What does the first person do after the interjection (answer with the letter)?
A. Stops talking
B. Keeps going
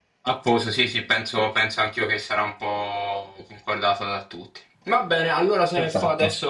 B